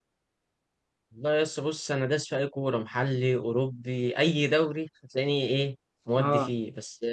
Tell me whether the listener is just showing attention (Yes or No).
Yes